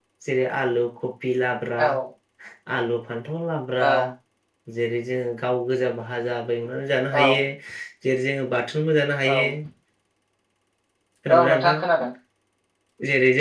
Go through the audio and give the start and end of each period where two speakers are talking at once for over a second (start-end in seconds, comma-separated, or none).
none